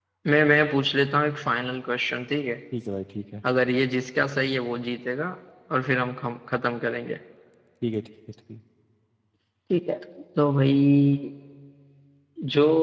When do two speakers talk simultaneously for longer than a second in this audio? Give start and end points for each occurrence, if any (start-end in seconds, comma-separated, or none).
none